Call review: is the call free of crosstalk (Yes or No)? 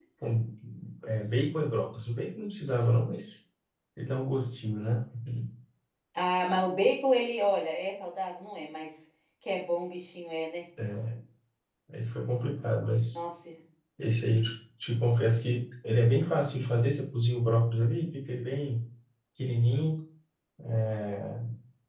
Yes